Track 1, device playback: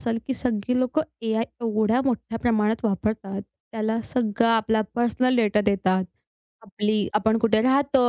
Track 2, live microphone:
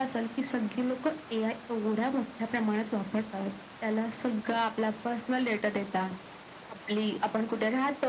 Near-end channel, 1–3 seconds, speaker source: echo only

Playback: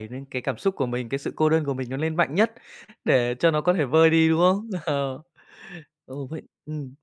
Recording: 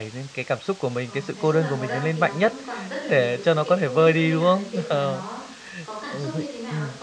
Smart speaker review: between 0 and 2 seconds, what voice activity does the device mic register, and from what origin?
both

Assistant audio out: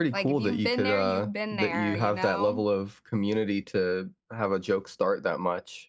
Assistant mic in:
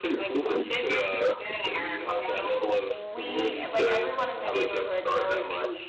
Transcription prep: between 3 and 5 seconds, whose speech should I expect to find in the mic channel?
both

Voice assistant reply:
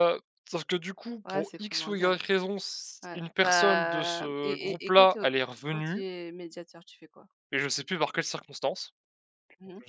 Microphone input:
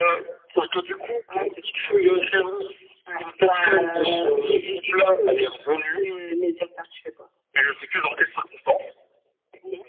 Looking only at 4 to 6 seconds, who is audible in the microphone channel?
echo only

